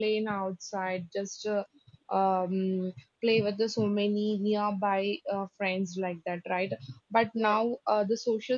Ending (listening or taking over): listening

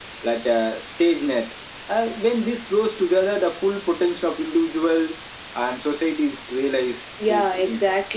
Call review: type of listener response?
taking over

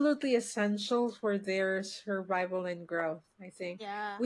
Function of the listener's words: listening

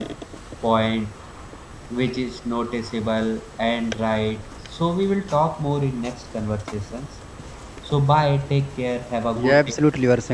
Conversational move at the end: taking over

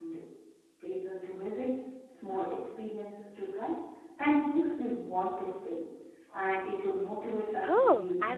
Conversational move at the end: taking over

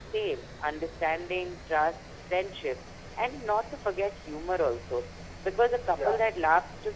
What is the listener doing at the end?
listening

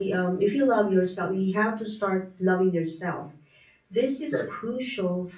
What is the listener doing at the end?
listening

